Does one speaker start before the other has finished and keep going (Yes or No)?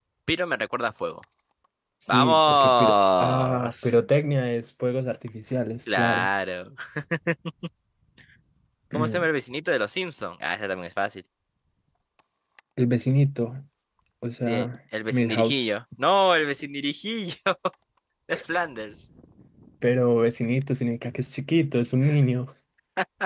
Yes